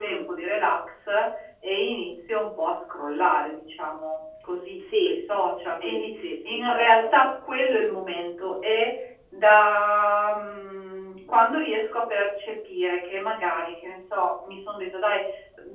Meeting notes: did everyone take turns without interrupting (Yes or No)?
No